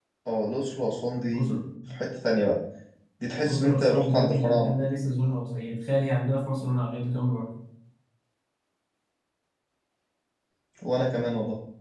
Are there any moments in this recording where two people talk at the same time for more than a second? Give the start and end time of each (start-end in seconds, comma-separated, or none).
3.4-4.7